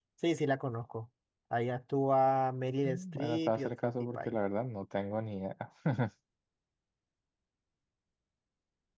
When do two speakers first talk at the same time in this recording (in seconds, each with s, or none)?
2.8 s